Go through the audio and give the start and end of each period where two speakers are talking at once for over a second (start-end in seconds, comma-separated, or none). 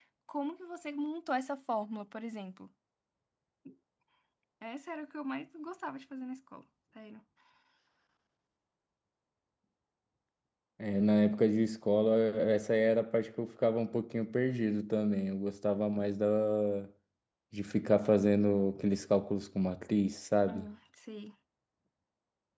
none